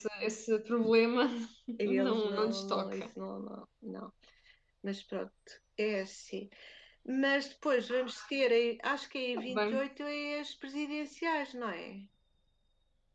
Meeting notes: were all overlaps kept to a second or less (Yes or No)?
No